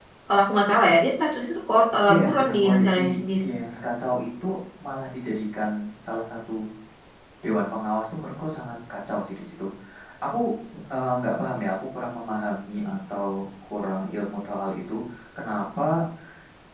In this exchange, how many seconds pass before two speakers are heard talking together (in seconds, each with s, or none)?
2.1 s